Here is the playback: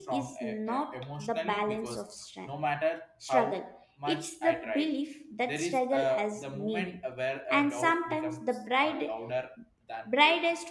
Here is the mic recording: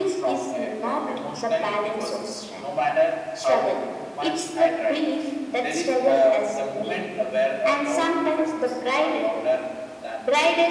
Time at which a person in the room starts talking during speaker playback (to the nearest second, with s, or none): none